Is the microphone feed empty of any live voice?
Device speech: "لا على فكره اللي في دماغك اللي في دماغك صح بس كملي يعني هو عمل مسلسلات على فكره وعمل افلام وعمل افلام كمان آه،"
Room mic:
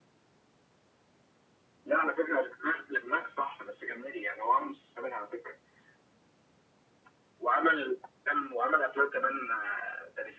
Yes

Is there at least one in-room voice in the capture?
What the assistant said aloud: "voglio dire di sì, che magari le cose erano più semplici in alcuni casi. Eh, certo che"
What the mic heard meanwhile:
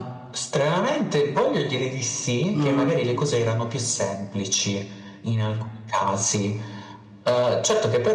Yes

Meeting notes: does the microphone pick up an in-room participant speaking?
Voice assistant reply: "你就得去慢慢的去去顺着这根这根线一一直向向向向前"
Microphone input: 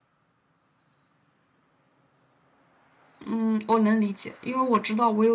Yes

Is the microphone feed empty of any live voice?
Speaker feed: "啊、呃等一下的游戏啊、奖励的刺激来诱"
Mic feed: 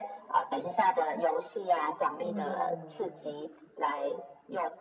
No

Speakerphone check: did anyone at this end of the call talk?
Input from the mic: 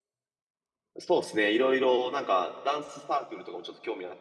Yes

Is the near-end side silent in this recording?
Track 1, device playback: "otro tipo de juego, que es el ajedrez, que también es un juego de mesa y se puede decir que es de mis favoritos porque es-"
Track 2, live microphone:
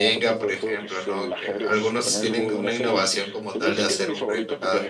No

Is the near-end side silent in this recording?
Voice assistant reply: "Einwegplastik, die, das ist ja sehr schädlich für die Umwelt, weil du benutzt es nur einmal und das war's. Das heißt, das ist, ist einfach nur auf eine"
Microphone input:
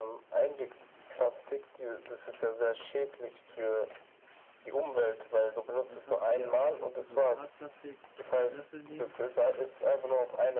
No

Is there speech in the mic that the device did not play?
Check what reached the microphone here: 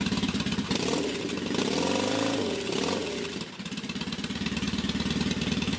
No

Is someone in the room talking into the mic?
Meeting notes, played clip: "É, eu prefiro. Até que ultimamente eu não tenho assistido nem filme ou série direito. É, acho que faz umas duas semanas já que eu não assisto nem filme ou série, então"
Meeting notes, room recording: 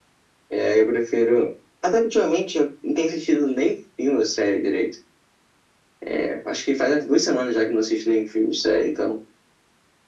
No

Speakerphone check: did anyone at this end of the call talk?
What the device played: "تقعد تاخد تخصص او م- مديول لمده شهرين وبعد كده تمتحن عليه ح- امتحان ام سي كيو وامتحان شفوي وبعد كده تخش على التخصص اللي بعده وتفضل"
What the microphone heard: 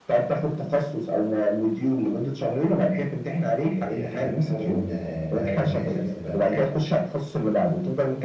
Yes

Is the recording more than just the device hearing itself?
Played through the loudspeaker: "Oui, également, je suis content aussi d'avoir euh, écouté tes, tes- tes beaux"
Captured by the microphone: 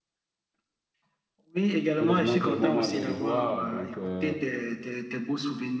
Yes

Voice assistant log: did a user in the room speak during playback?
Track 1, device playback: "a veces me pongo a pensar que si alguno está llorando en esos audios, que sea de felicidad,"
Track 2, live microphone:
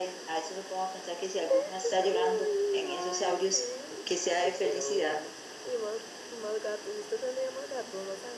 Yes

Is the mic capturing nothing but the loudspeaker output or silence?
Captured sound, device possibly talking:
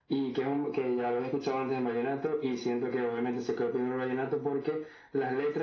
Yes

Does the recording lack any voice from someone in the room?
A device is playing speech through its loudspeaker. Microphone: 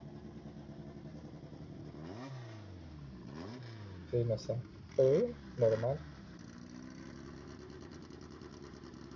No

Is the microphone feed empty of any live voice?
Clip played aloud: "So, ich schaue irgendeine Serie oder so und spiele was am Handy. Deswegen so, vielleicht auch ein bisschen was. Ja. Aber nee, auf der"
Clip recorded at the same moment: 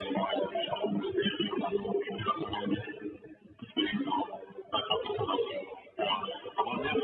Yes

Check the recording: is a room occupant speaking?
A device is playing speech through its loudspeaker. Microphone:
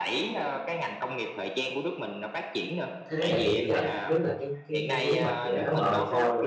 Yes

